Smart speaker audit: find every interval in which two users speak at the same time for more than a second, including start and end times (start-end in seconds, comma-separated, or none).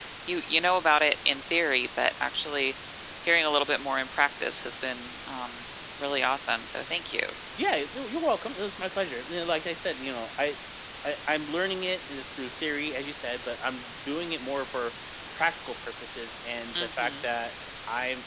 none